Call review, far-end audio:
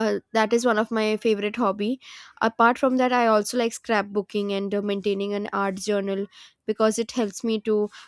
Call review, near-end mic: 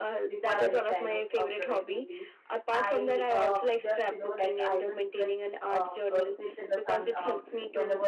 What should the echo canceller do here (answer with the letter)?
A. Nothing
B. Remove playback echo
B